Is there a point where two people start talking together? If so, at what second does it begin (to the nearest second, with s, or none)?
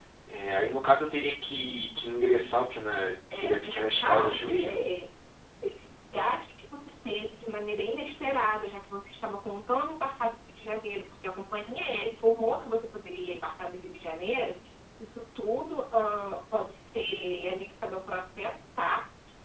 3 s